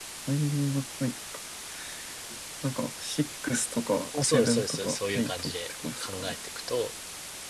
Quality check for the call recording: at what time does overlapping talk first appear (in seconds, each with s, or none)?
4.1 s